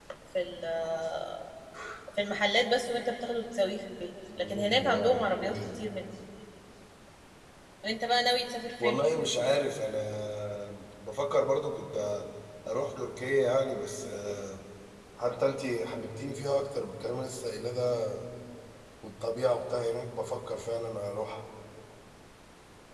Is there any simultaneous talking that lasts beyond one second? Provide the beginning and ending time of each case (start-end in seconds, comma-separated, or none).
4.4-5.8